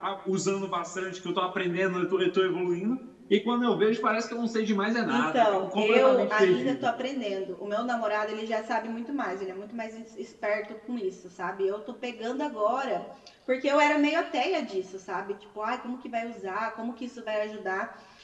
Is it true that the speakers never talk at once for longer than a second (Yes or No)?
No